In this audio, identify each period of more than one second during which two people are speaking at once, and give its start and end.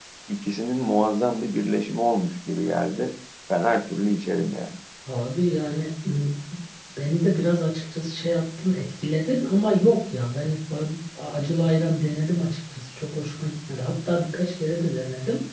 none

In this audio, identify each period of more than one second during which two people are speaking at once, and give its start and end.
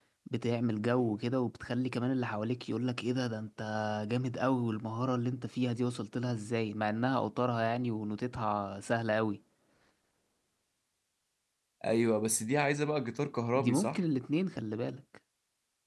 none

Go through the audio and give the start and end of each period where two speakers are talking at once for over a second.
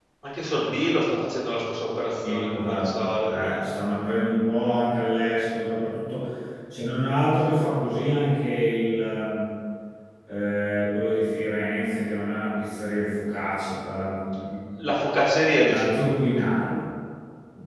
2.2-3.7

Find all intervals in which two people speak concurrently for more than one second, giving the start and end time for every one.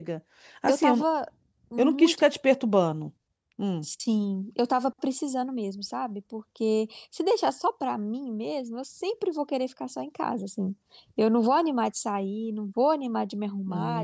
none

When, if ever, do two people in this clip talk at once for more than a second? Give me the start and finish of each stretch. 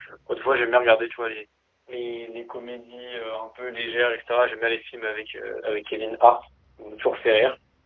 none

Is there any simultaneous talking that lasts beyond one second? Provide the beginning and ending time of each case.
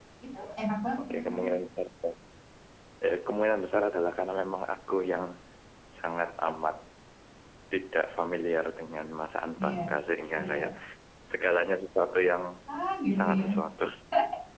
none

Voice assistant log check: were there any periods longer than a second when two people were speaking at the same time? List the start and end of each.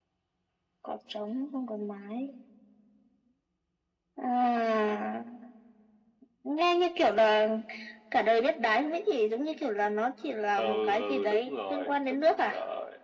10.6-12.5

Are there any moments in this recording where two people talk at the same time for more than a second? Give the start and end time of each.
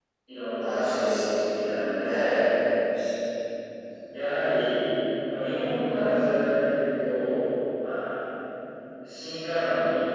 0.6-2.4

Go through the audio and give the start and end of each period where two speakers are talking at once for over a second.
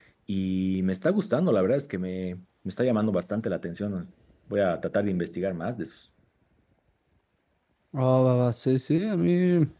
none

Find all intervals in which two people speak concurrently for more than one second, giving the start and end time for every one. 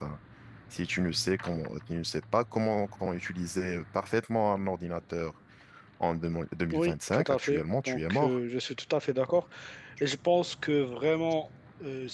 6.7-8.4

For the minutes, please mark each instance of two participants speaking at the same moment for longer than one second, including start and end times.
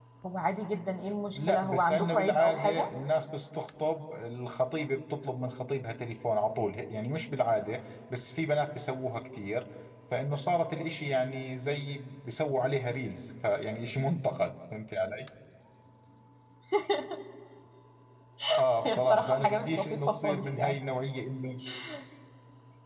1.4-2.9, 18.8-20.8

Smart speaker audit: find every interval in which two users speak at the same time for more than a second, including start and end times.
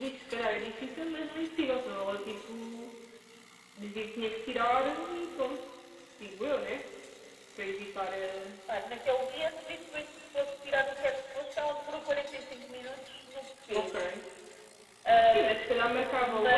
none

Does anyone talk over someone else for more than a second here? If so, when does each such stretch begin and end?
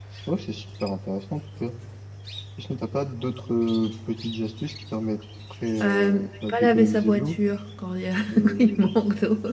5.8-7.4

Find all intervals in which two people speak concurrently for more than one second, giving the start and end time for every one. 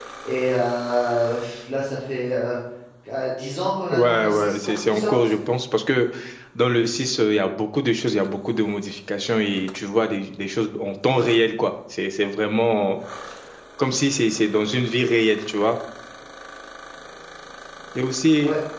3.9-5.3

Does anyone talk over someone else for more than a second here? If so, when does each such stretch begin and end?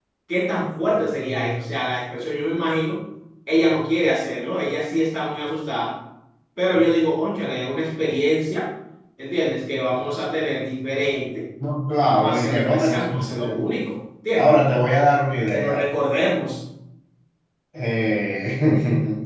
12.0-13.5

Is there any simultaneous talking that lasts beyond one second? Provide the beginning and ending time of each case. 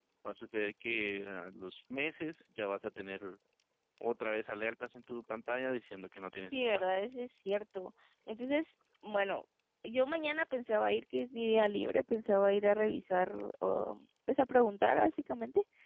none

